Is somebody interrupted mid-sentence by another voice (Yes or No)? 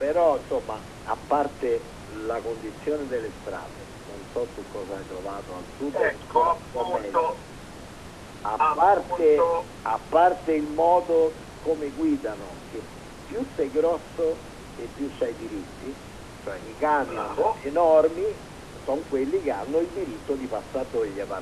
Yes